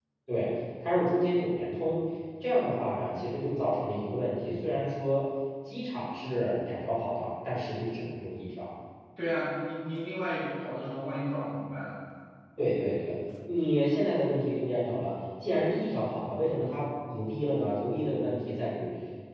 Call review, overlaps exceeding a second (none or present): none